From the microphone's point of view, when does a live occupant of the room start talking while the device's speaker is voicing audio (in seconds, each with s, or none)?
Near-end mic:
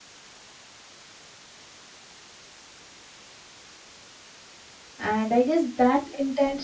5.0 s